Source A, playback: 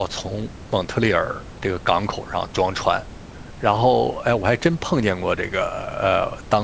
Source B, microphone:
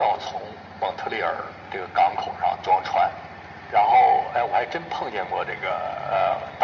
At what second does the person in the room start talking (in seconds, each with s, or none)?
none